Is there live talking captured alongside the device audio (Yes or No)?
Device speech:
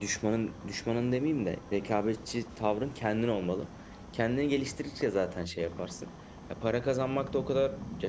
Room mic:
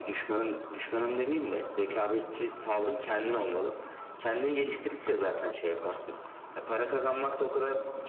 No